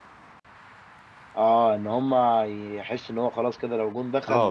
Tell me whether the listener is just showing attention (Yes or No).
No